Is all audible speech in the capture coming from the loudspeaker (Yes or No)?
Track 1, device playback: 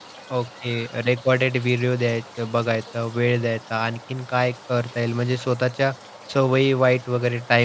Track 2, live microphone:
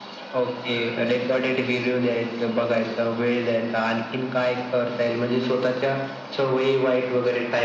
Yes